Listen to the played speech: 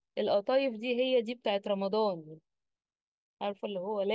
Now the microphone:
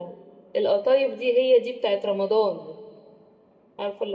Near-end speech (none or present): none